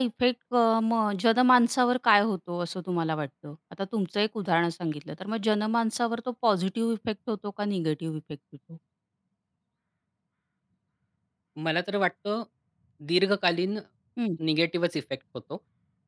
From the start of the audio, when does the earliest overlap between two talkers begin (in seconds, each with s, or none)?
none